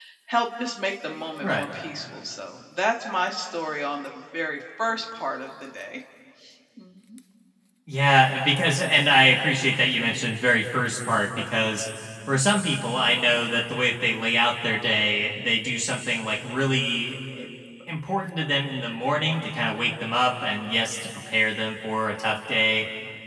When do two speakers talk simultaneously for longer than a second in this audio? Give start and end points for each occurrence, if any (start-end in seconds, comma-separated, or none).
none